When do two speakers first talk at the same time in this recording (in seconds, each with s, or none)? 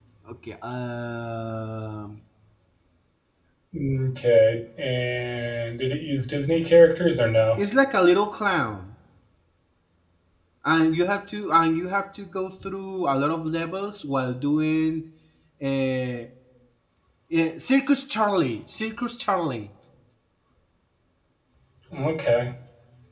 none